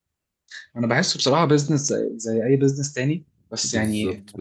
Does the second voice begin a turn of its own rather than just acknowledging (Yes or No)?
Yes